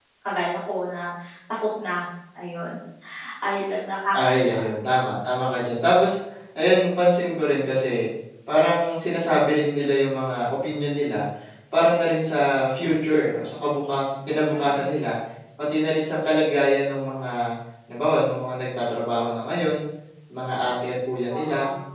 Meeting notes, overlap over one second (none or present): none